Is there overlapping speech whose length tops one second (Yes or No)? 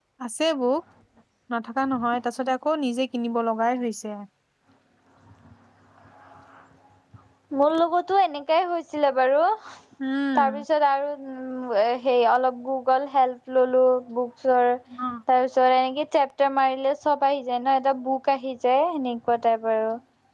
No